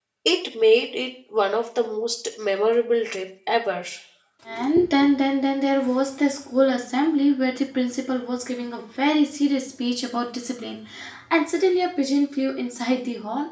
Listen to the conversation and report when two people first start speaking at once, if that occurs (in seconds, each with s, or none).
none